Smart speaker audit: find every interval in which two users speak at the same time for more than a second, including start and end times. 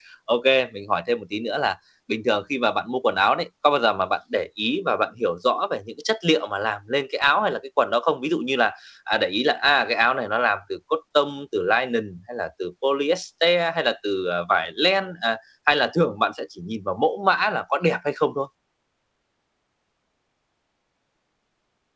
none

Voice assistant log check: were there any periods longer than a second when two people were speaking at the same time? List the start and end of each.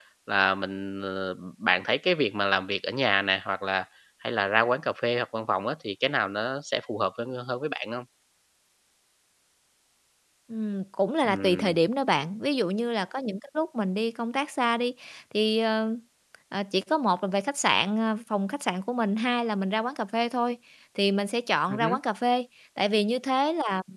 none

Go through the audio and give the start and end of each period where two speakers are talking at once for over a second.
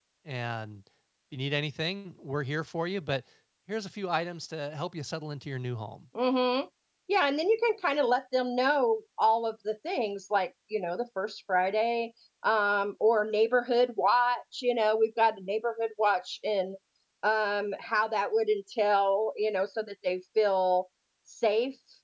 none

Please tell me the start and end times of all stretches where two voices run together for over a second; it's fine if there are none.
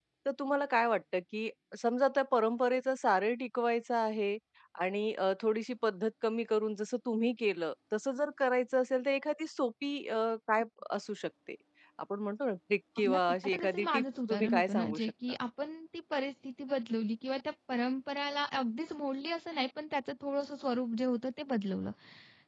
13.1-15.1

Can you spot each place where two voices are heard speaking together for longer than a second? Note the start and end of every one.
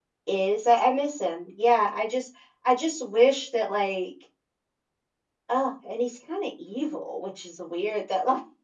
none

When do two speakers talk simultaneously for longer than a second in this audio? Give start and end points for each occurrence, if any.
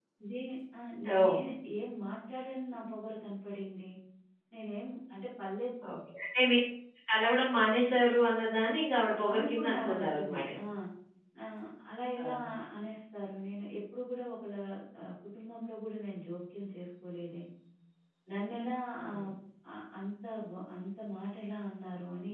9.3-10.6

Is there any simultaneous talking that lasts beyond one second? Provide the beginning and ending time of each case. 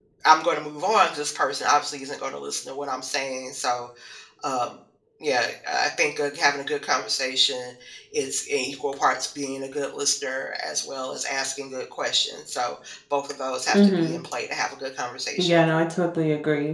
none

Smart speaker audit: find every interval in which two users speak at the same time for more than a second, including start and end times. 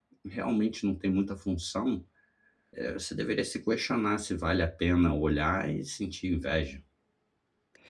none

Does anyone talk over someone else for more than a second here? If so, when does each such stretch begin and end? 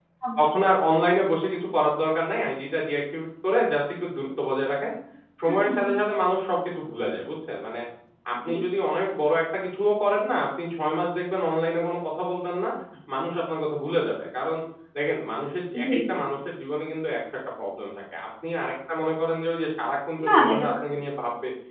none

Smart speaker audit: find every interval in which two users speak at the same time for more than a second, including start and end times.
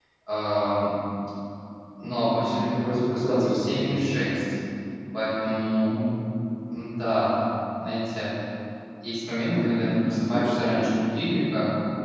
2.5-4.0, 9.5-10.9

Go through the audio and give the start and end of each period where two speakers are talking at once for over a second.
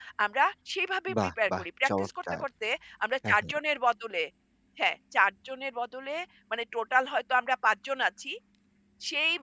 1.2-2.4

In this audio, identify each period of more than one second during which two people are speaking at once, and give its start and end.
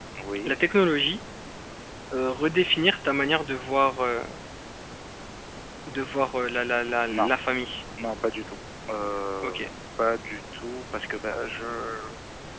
none

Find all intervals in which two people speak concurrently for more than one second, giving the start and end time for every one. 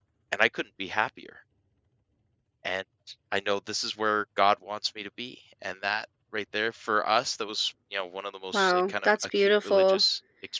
8.5-10.0

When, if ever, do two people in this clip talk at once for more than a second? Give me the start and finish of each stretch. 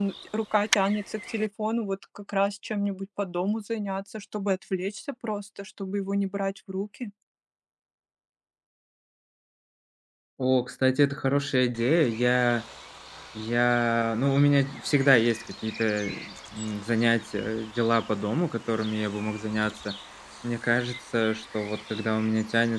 none

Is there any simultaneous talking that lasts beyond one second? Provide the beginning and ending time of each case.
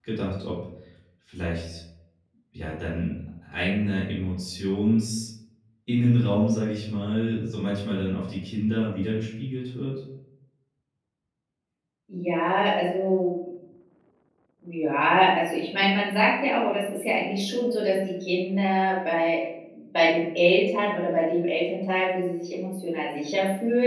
none

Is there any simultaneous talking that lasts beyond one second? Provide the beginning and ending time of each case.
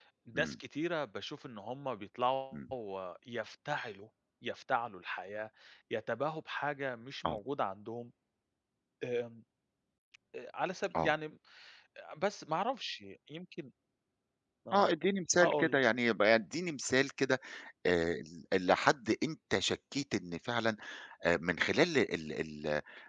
none

